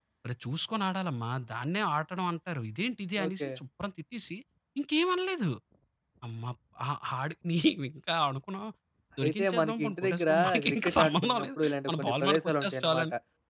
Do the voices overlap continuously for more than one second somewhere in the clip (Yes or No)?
Yes